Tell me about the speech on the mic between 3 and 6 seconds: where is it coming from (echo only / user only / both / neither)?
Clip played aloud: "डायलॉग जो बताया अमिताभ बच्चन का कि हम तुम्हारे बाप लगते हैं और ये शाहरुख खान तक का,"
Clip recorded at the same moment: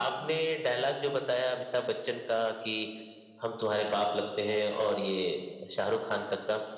echo only